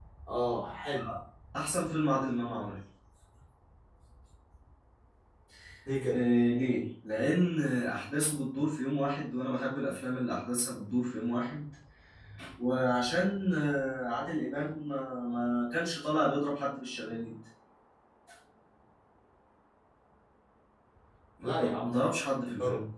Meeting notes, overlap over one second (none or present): none